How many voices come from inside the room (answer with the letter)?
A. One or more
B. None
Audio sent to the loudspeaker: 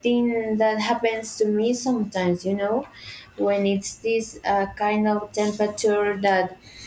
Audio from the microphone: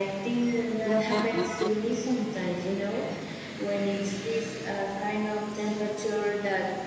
A